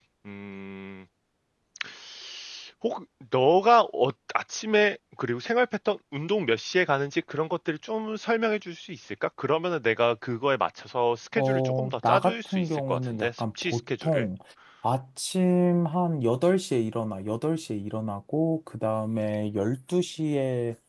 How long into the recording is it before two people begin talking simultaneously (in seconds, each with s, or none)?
11.4 s